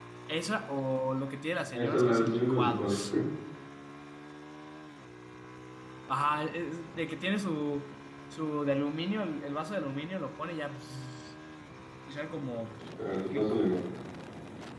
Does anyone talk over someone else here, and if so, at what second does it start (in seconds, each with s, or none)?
1.7 s